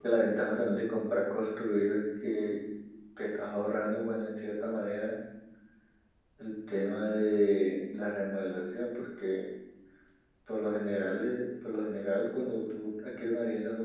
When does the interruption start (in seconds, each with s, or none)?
none